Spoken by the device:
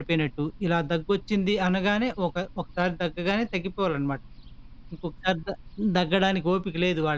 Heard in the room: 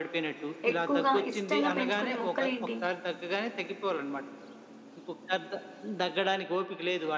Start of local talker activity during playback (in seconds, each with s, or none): 0.7 s